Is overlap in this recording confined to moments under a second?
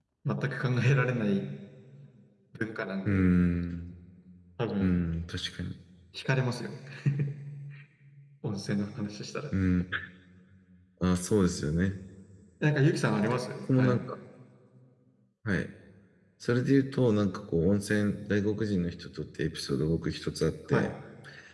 Yes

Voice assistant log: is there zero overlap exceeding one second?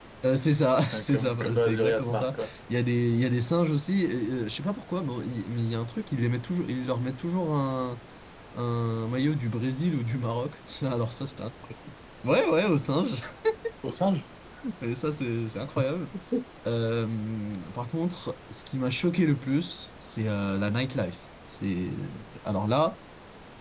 No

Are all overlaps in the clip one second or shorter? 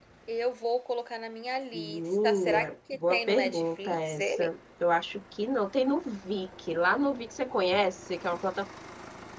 No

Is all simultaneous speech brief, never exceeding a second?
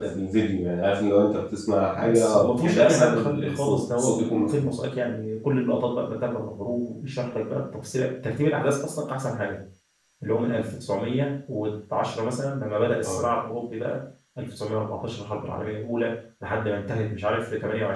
No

